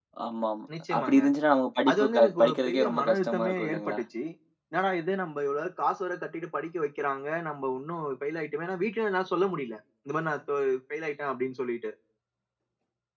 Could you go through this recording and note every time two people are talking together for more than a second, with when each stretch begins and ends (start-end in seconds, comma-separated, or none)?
1.9-4.0